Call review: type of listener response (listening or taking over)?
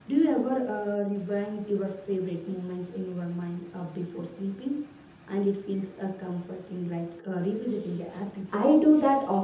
taking over